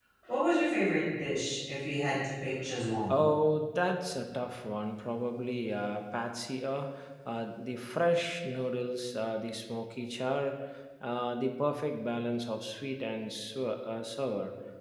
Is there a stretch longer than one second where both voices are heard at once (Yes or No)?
No